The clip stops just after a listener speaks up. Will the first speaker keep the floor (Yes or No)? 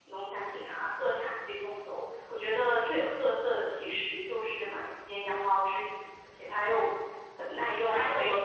No